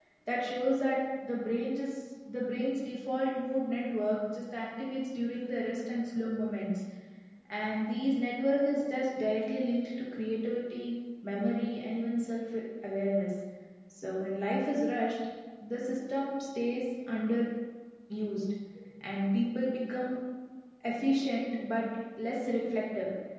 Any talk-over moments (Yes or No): No